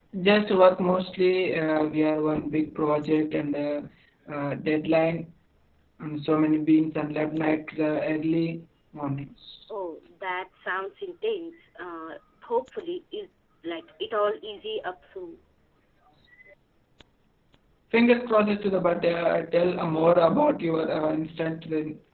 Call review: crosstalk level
none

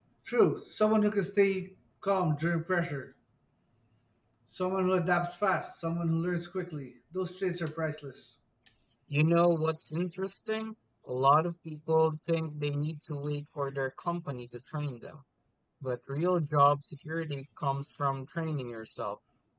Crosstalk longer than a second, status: none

